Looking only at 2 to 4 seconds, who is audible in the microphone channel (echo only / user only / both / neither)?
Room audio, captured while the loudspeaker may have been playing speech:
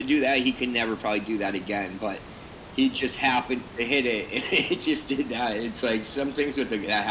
echo only